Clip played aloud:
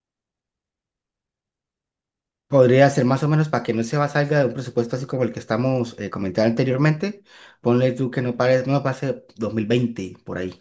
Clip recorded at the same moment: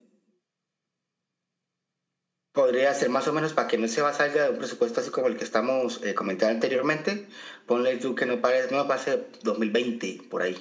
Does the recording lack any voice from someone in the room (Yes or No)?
Yes